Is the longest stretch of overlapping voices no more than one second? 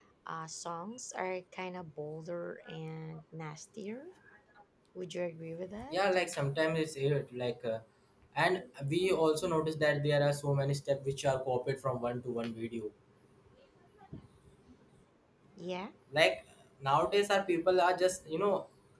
Yes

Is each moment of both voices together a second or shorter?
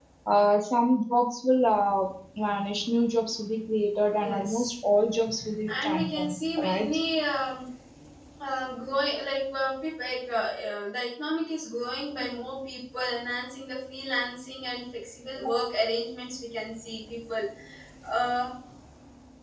No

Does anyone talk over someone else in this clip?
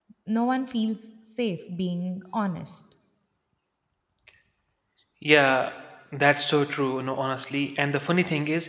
No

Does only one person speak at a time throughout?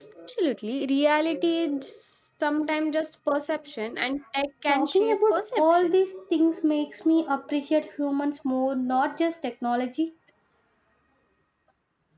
No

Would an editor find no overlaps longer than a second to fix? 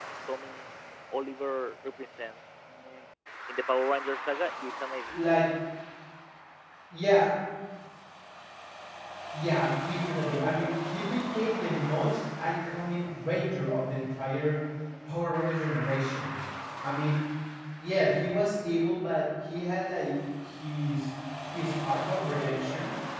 Yes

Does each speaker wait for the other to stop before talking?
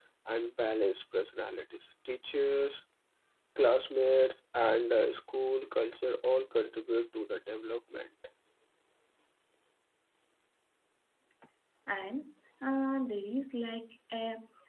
Yes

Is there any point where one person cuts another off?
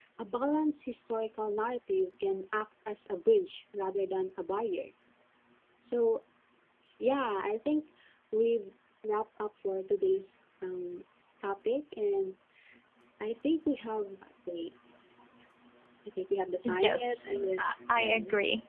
Yes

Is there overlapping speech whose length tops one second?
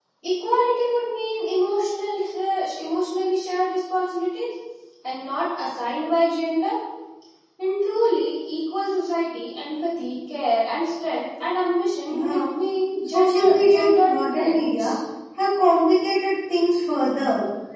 Yes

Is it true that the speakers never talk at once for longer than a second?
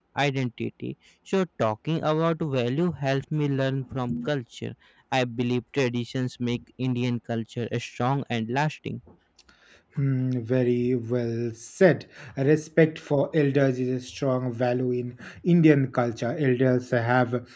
Yes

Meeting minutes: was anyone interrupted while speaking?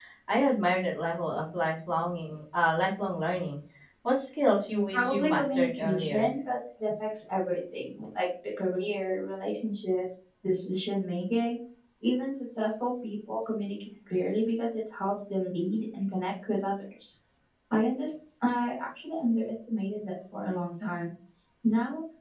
Yes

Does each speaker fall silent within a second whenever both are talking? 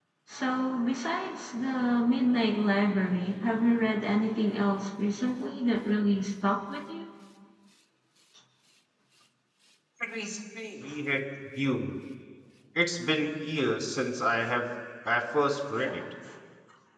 Yes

